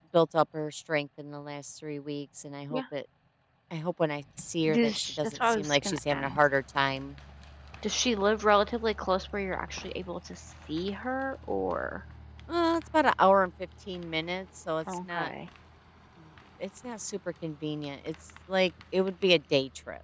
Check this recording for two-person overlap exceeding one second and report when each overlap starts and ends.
4.7-6.4

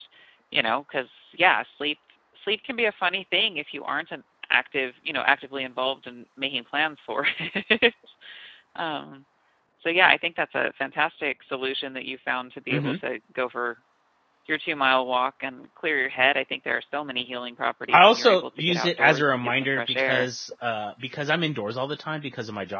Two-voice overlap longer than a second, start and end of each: 17.9-20.3

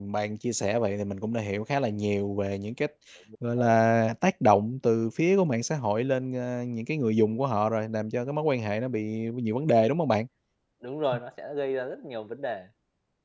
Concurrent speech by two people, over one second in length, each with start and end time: none

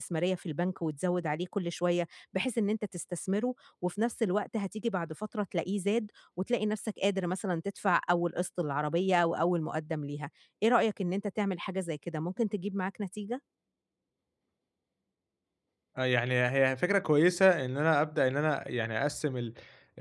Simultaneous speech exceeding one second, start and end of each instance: none

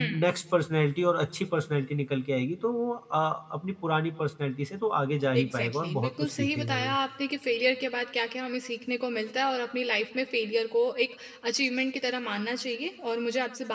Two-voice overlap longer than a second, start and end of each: 5.4-7.0

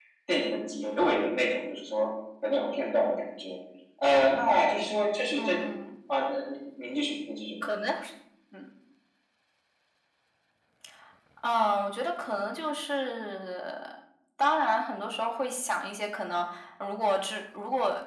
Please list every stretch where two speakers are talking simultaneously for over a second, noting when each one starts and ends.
none

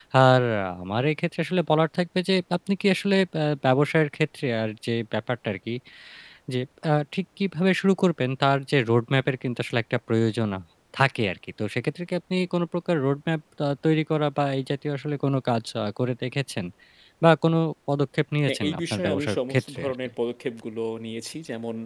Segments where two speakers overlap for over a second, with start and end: 18.5-20.1

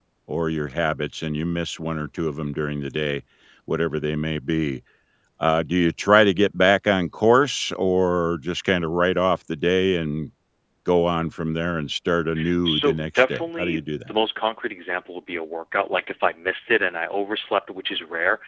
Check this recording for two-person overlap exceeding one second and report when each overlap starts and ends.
12.7-14.1

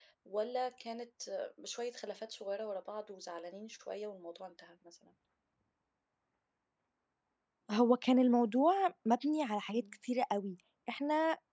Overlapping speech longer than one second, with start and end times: none

